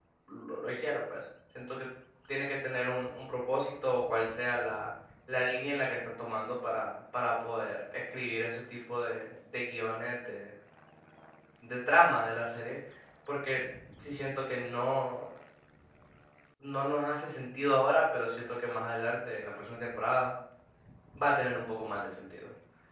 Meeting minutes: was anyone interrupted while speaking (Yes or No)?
No